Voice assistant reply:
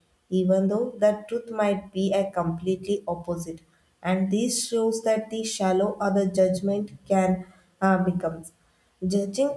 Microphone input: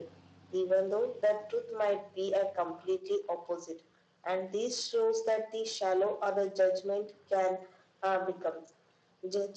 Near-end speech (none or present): none